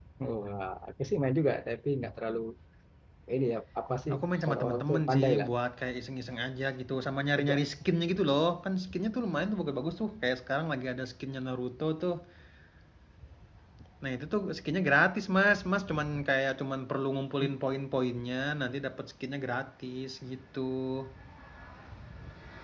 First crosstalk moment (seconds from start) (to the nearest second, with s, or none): 4 s